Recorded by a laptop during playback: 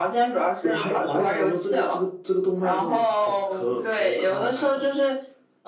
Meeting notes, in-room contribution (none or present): none